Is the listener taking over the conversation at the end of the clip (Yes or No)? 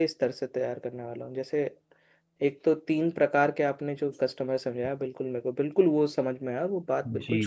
Yes